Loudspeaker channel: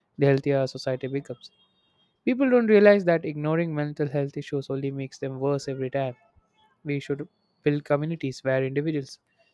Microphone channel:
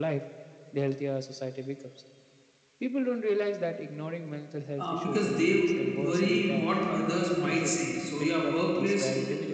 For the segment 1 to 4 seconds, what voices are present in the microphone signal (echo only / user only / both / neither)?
echo only